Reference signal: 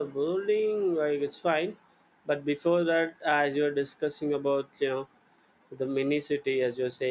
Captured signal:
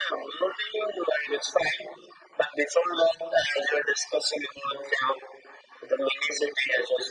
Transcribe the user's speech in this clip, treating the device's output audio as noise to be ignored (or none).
none